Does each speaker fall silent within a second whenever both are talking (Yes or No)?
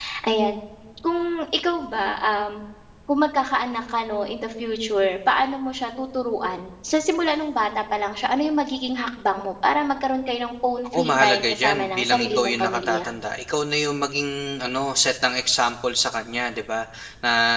No